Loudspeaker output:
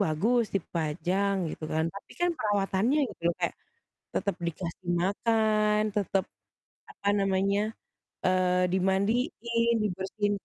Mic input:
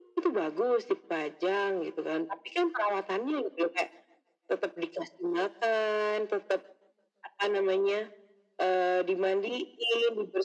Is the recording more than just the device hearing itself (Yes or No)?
No